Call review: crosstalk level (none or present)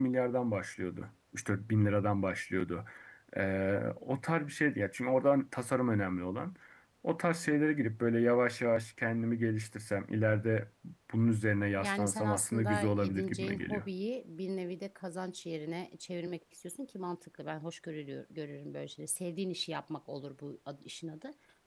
present